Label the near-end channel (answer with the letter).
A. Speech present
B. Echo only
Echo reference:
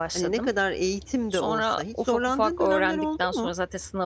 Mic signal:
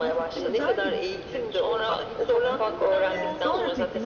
A